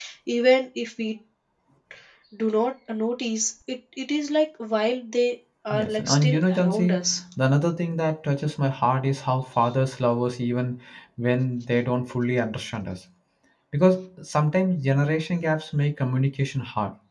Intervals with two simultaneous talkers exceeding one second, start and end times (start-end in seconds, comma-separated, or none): 5.7-7.0